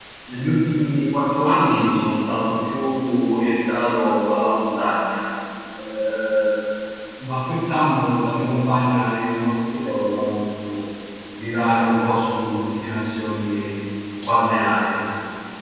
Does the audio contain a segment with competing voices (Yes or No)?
No